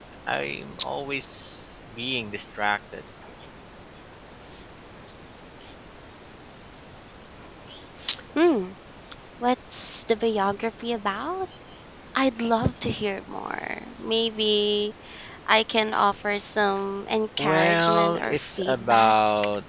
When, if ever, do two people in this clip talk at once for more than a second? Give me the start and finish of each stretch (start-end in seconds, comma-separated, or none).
17.4-19.1